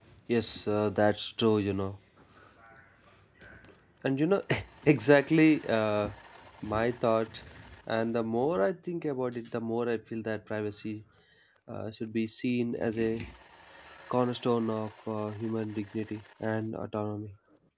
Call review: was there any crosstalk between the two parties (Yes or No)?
No